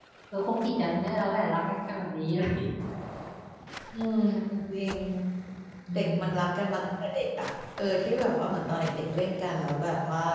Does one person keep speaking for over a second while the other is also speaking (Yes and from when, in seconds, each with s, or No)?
No